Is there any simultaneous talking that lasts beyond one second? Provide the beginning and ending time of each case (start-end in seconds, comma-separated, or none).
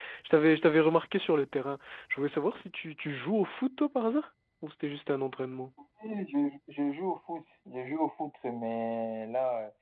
none